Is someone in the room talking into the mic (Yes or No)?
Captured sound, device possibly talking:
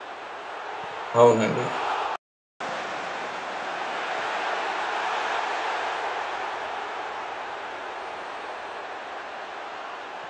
Yes